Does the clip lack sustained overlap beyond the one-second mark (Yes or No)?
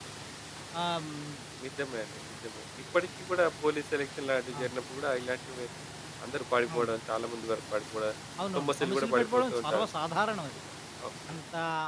No